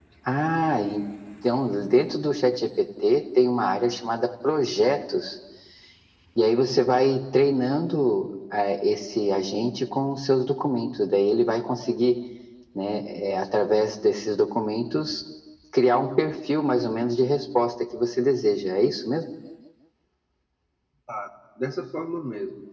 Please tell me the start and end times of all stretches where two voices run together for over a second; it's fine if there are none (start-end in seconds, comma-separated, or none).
none